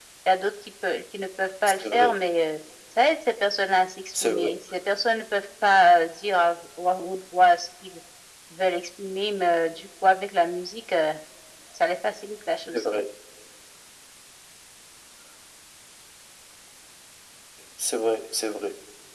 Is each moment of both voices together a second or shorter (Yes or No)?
Yes